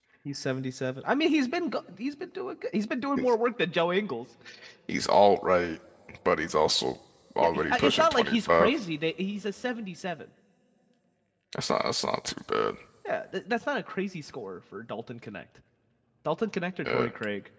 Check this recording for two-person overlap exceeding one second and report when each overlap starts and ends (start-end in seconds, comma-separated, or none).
7.4-8.8